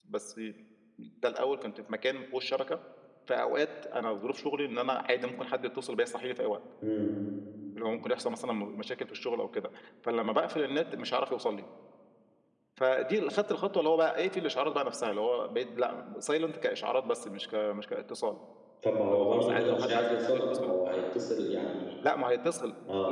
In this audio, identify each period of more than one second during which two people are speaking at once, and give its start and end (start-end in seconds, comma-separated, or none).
19.1-20.7